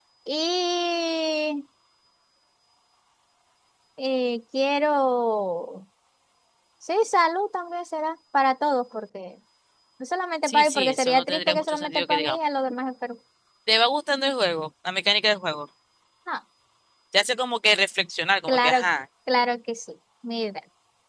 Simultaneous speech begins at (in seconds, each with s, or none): 10.4 s